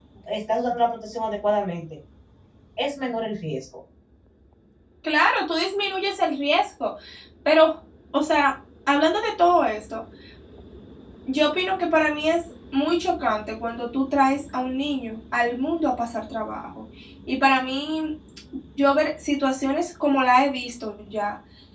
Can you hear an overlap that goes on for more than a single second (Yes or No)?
No